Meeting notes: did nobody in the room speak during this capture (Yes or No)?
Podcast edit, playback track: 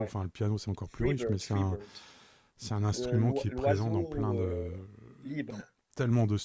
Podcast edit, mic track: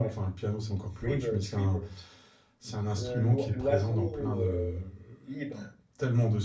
Yes